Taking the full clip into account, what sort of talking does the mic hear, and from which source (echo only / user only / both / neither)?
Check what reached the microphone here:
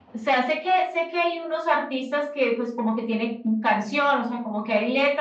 echo only